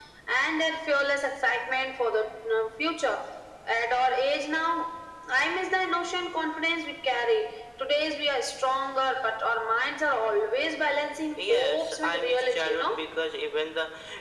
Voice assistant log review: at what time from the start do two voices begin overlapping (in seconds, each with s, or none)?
11.4 s